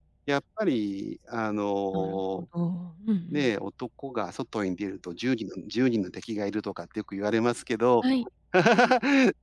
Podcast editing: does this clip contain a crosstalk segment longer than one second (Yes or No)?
No